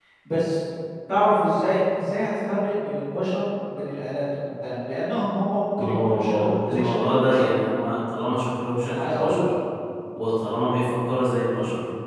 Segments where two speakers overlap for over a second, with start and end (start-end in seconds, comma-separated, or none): 5.8-7.5